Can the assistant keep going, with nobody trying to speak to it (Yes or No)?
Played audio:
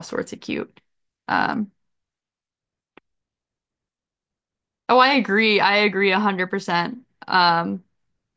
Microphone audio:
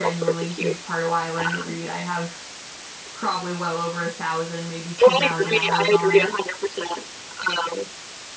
No